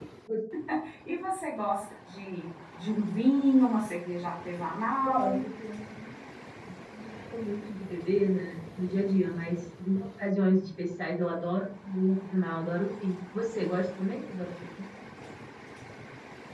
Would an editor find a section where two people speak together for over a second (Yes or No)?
No